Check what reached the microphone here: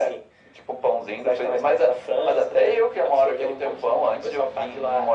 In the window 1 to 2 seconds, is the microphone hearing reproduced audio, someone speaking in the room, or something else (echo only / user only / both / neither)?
echo only